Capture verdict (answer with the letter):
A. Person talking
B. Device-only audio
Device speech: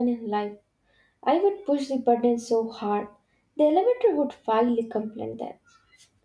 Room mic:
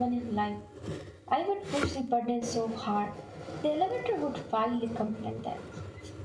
B